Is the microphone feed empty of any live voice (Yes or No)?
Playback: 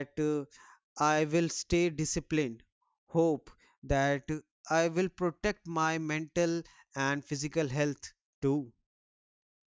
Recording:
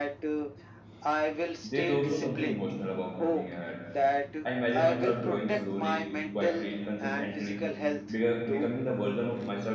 No